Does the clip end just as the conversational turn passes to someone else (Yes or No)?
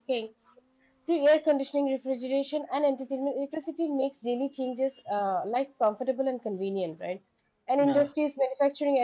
No